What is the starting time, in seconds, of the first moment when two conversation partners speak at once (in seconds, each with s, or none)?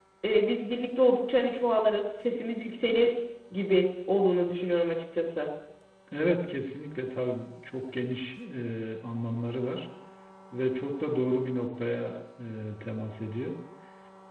none